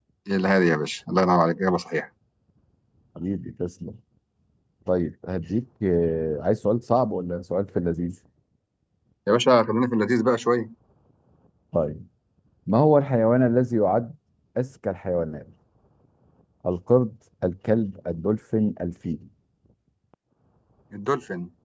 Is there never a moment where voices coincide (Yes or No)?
Yes